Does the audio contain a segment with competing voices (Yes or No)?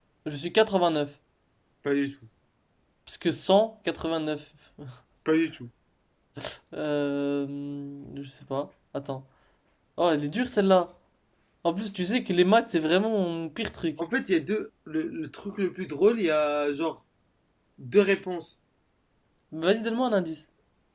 No